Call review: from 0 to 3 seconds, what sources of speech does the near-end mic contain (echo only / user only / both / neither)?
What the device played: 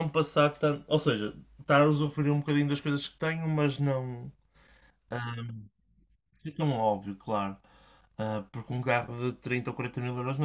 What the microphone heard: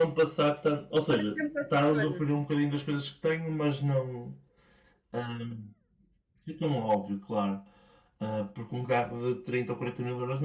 both